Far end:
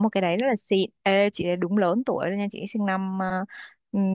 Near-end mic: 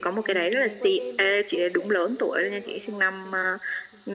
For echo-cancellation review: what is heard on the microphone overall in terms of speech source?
both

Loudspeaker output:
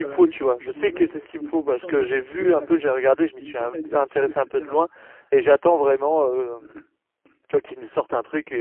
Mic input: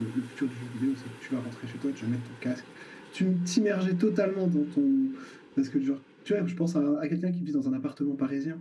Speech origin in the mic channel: user only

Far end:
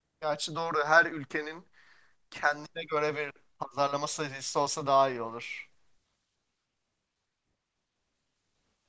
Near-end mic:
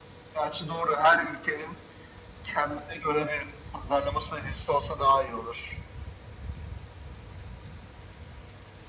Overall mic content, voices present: echo only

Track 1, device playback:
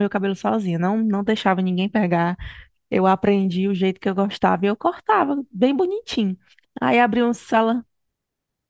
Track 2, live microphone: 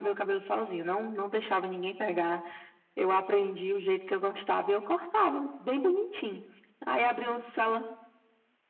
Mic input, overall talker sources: echo only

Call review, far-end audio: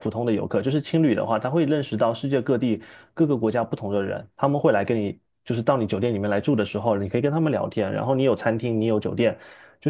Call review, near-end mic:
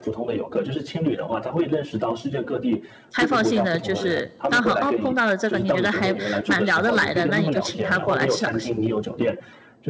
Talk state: both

